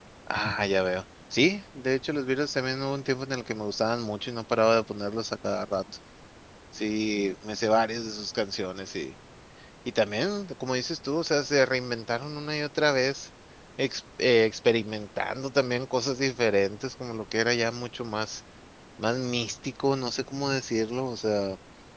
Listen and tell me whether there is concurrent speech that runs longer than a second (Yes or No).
No